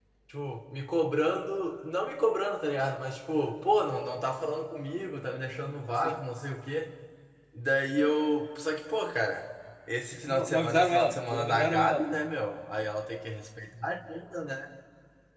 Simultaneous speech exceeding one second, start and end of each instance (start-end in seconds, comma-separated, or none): 10.2-12.1